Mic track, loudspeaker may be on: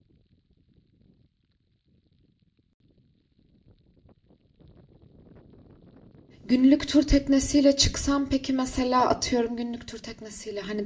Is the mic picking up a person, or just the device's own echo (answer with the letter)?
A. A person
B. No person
A